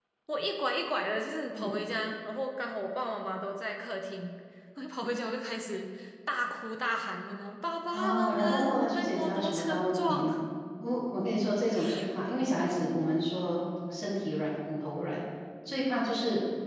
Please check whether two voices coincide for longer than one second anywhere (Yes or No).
Yes